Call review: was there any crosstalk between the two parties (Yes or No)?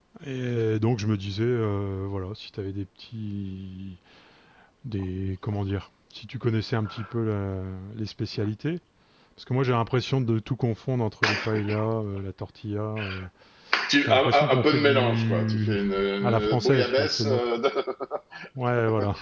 Yes